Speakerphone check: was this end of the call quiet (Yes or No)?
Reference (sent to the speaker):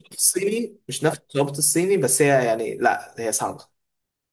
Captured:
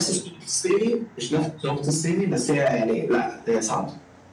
Yes